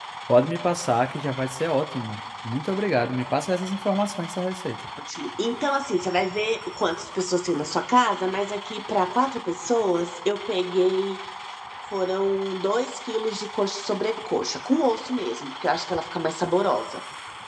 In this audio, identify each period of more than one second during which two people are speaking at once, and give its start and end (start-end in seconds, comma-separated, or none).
none